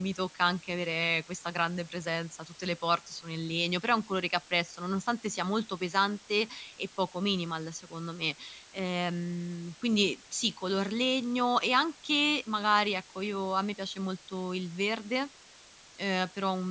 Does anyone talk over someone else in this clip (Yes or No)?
No